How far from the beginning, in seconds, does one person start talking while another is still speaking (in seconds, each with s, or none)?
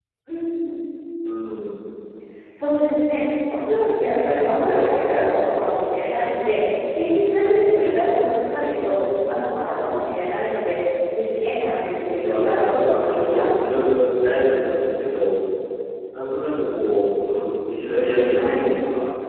12.1 s